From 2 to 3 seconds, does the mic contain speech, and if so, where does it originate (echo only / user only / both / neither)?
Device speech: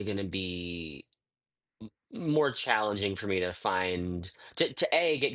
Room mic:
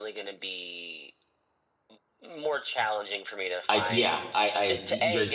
echo only